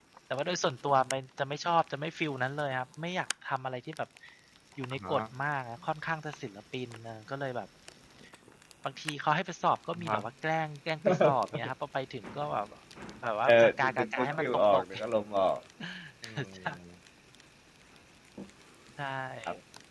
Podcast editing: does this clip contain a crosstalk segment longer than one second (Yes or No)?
Yes